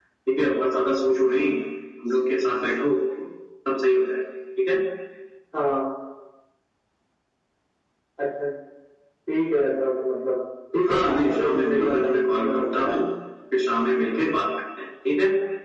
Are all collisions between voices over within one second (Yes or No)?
No